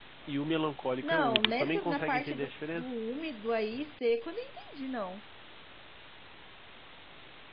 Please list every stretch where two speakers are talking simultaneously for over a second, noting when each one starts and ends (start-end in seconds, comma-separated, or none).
1.0-2.9